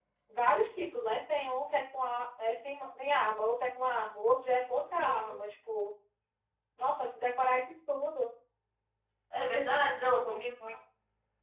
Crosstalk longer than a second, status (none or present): none